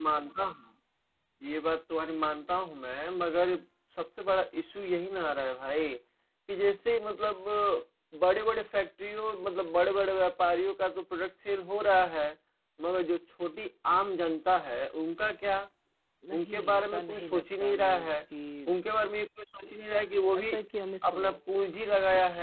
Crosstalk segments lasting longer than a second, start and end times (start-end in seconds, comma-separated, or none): 16.3-18.1